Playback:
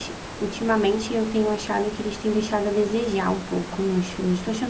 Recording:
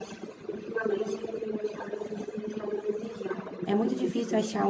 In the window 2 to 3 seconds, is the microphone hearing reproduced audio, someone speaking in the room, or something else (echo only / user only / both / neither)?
echo only